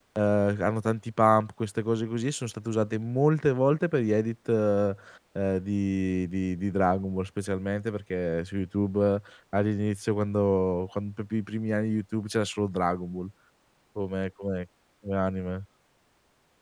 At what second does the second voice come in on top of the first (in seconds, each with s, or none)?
none